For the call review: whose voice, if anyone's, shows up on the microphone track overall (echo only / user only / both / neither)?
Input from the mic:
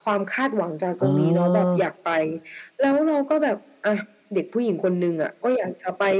both